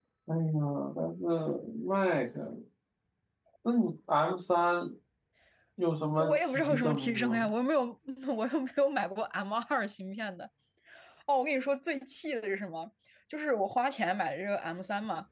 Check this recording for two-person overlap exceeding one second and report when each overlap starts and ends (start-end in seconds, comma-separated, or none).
6.2-7.5